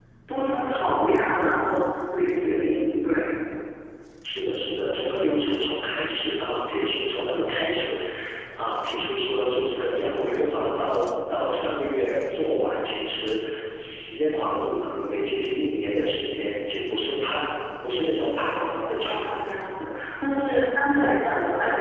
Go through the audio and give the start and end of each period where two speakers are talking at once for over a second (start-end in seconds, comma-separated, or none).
none